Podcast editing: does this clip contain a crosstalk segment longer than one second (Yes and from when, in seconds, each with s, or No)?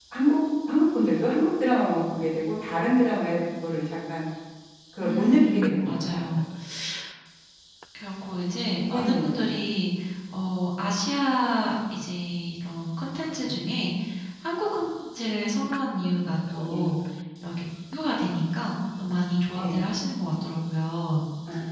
Yes, from 5.0 s